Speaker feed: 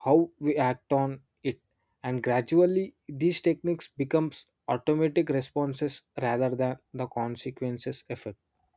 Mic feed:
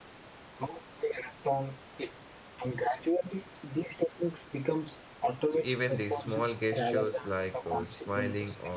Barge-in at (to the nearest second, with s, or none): 5 s